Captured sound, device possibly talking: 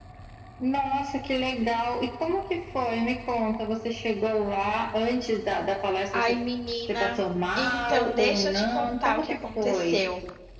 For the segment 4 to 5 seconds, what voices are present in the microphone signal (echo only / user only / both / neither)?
echo only